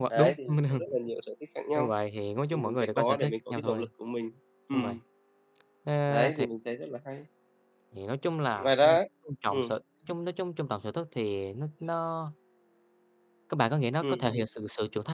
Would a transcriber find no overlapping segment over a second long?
No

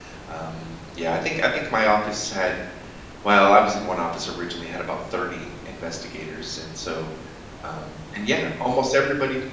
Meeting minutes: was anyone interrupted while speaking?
No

